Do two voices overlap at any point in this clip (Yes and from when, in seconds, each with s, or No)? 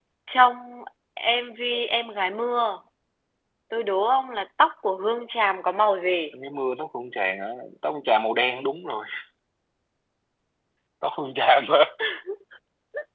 No